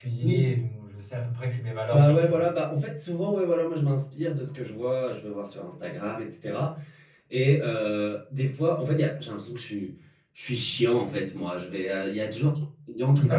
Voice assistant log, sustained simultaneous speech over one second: none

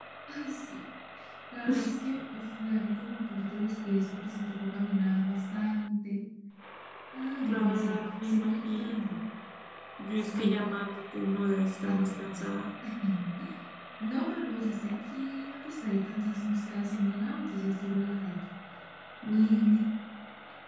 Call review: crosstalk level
present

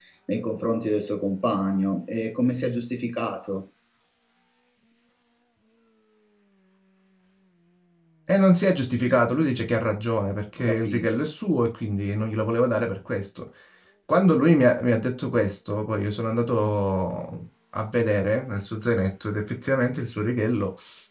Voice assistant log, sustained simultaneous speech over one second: none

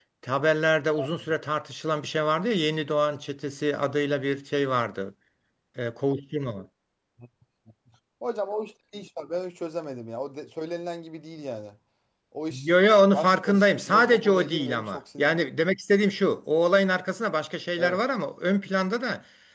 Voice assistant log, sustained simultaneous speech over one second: present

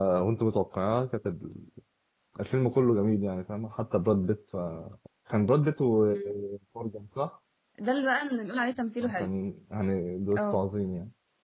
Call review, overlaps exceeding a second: none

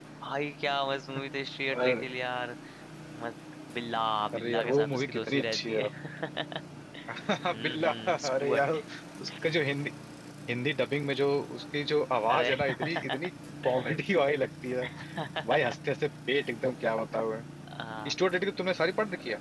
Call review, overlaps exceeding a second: present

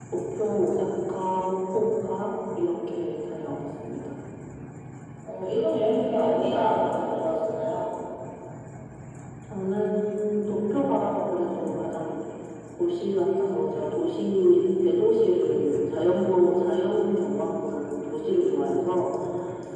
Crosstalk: none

